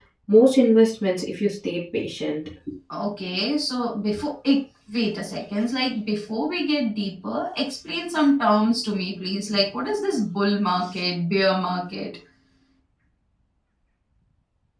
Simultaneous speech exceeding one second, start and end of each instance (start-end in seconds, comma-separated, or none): none